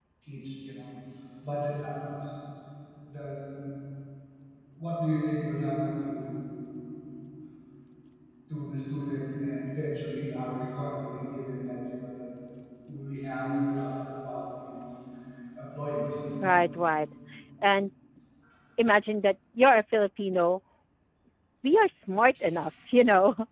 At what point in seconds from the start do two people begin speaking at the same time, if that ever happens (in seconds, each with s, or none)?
none